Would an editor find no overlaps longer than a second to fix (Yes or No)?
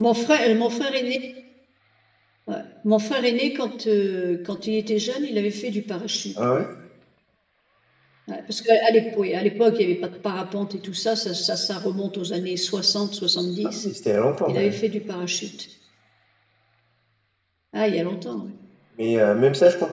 Yes